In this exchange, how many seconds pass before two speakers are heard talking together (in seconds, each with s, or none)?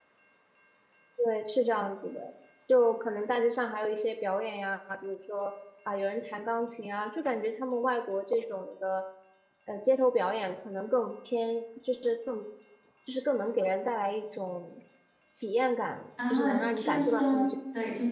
16.2 s